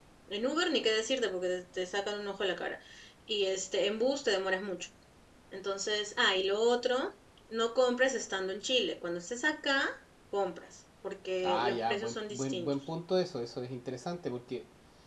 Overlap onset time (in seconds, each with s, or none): 11.4 s